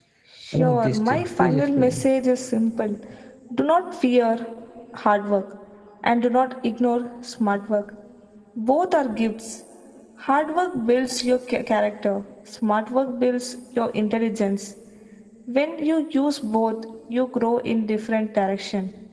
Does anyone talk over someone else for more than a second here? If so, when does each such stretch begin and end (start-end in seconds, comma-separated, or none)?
0.5-2.1